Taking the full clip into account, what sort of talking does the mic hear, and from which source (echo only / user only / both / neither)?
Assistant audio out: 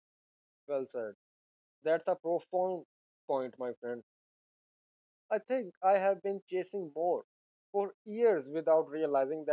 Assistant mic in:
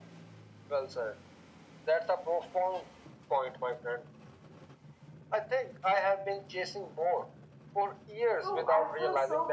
both